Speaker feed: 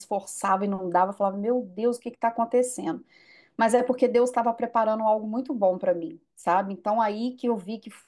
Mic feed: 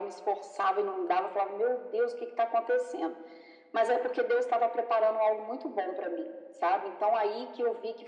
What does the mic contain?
echo only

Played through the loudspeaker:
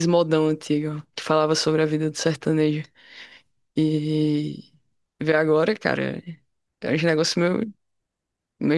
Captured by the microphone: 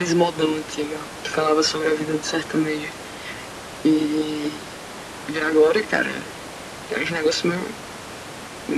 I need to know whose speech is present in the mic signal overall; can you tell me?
echo only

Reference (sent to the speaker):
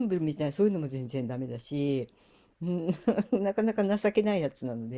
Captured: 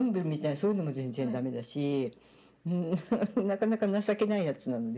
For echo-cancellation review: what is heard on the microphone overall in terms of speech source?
both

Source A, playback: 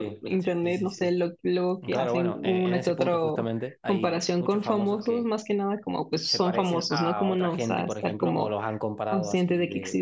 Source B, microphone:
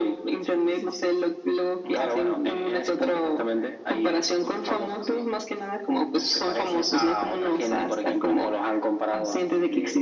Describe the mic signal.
echo only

